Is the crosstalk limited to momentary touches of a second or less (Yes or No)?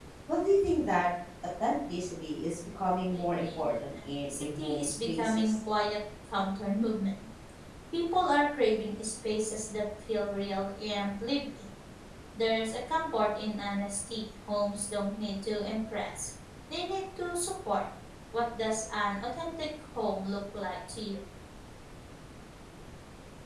No